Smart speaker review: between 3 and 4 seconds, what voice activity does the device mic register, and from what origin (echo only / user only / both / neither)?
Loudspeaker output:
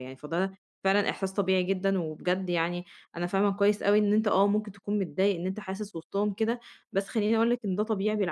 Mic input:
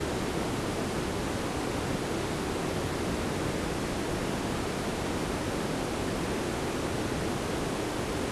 neither